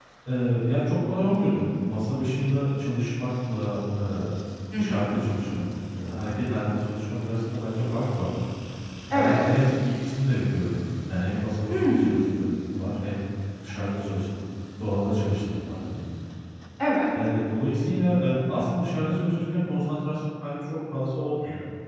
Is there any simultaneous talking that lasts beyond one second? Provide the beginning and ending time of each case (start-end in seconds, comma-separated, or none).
none